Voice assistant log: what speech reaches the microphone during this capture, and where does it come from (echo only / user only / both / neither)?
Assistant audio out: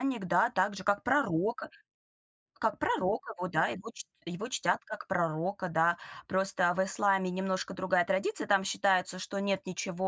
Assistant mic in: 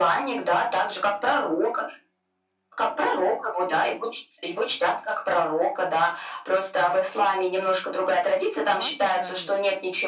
both